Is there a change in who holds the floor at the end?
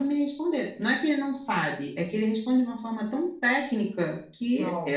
No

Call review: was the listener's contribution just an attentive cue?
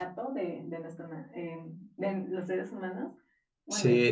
No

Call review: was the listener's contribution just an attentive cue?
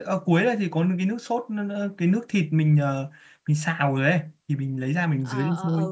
No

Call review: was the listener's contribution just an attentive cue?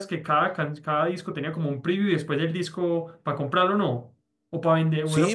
No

